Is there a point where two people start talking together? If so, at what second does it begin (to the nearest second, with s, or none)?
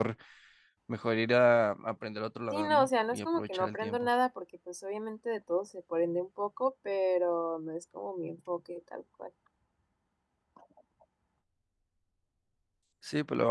3 s